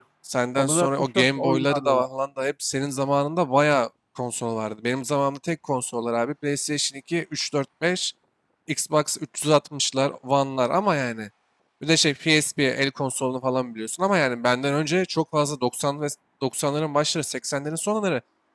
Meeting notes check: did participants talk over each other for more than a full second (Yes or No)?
Yes